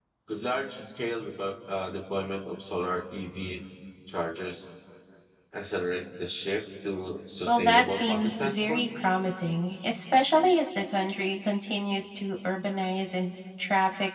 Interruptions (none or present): present